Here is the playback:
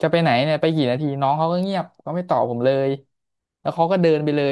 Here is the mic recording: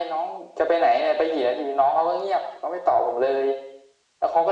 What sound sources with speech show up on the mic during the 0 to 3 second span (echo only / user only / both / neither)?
echo only